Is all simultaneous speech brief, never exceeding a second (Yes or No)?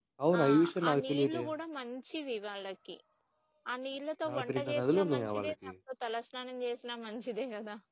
No